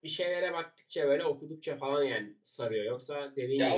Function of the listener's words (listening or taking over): taking over